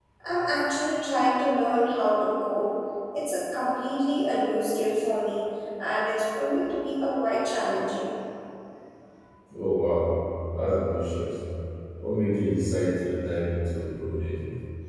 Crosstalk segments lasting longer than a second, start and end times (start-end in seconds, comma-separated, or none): none